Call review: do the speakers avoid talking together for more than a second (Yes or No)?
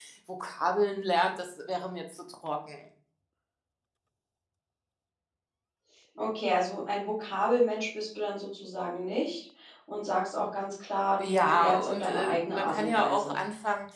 No